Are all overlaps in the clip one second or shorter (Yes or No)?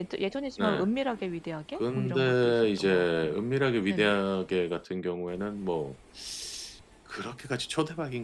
No